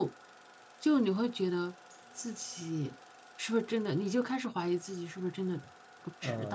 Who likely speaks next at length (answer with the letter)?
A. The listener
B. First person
A